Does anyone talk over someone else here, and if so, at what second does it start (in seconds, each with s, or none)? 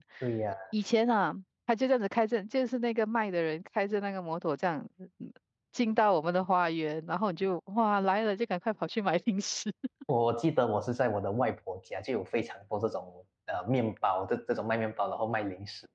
none